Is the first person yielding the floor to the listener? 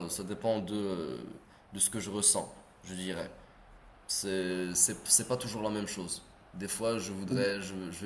No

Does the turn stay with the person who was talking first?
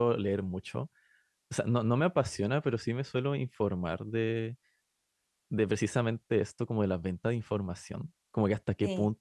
Yes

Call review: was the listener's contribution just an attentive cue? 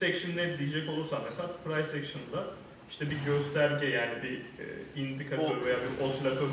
Yes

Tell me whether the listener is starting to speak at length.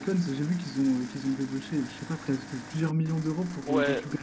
Yes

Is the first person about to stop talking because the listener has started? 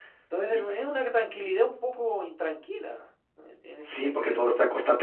Yes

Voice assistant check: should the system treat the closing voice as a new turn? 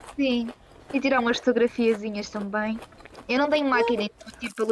No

